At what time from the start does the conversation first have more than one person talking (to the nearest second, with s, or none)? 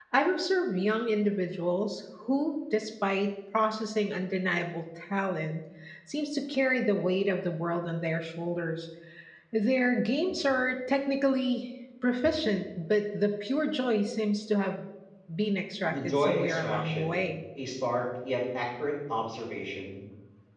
16 s